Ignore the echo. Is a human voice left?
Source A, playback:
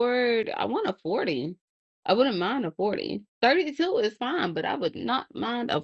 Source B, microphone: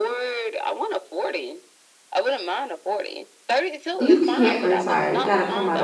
Yes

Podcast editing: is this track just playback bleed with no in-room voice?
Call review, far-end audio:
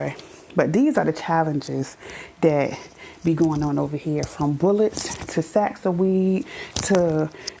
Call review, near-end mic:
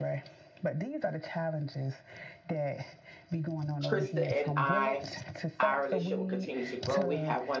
No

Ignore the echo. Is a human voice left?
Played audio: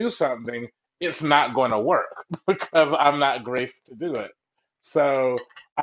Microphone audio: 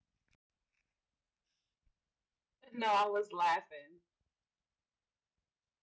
Yes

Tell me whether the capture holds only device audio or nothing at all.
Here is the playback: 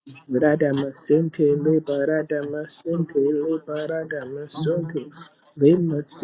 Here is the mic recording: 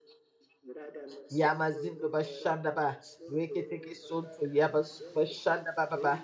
No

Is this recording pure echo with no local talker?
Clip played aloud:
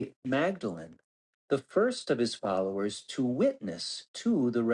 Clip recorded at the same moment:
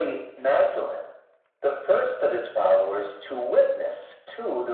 Yes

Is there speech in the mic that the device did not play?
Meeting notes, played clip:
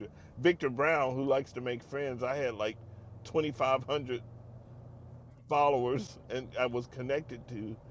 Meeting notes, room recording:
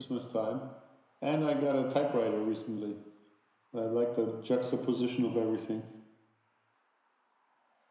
Yes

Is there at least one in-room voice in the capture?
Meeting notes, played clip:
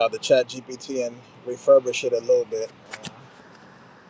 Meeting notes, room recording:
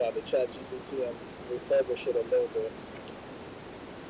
No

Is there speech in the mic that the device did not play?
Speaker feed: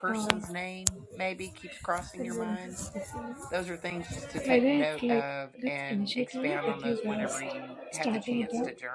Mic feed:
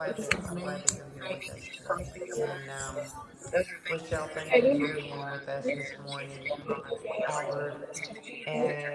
Yes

